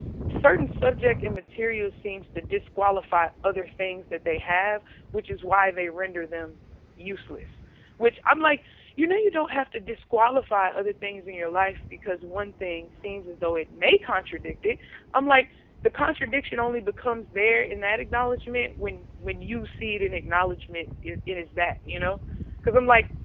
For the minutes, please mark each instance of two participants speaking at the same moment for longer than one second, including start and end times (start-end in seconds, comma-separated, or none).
none